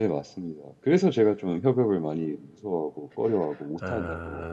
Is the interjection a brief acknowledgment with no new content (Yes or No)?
No